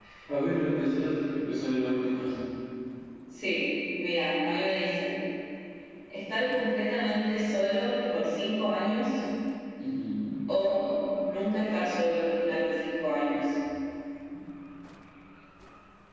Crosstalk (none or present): none